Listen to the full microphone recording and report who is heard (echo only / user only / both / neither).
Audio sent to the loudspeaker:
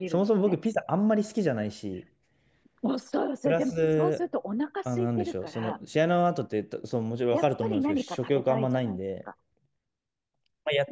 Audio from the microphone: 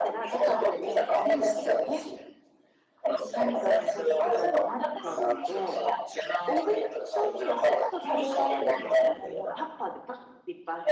both